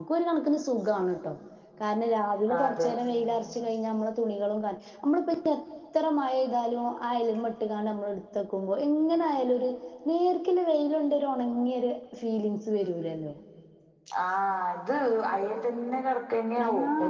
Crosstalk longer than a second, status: none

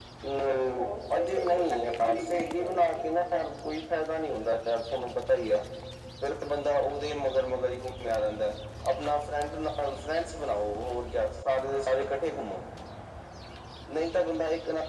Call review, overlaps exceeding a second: present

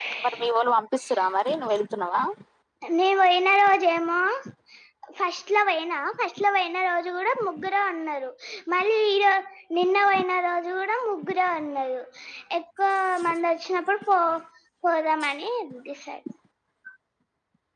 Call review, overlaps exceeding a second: none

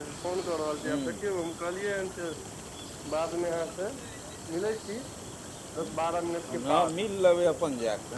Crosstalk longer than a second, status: none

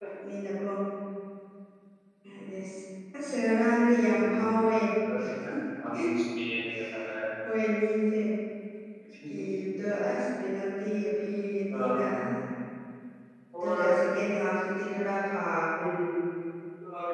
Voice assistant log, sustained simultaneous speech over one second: none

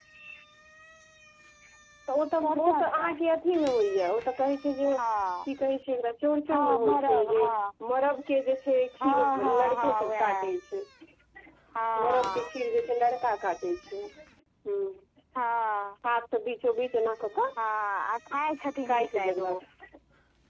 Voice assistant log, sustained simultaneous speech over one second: present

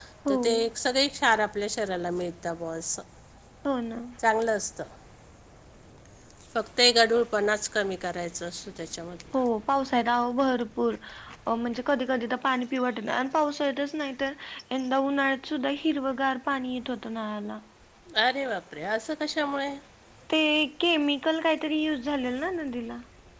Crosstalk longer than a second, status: none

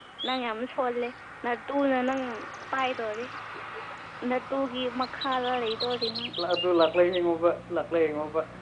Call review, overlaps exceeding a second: none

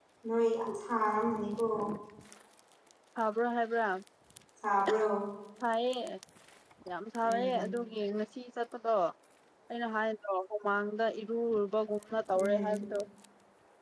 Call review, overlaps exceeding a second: none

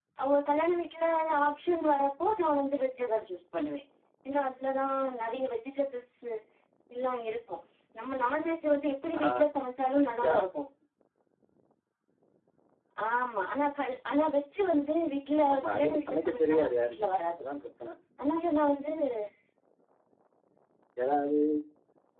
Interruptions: present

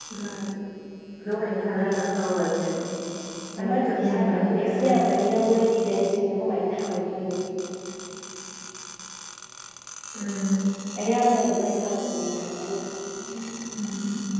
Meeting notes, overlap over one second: present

